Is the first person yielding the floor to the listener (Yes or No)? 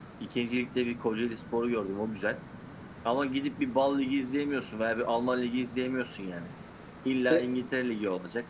No